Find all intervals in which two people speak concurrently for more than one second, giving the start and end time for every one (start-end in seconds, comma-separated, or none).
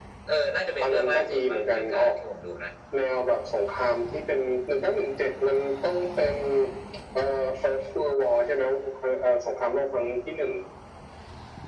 0.8-2.2